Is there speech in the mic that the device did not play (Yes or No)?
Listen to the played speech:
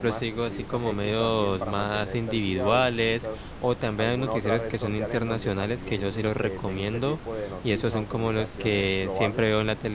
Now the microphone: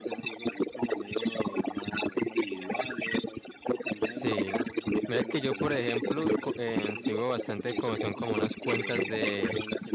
Yes